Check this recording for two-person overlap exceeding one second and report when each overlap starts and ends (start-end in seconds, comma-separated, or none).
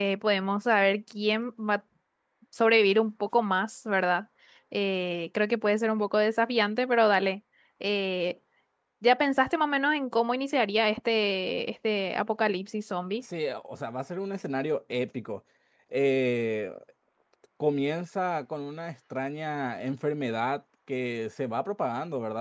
none